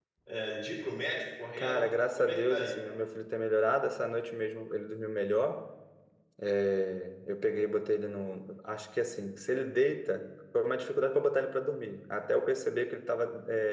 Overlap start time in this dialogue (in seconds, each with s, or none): 1.6 s